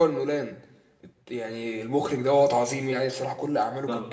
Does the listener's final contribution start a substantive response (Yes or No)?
Yes